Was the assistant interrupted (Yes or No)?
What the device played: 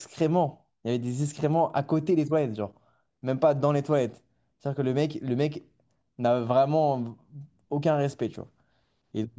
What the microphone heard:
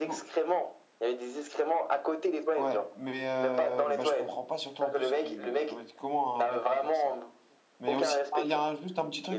Yes